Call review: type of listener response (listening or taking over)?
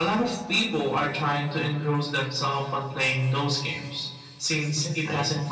listening